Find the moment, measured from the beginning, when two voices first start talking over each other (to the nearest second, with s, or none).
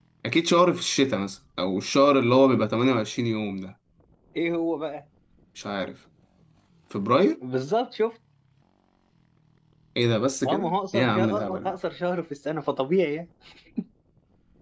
10 s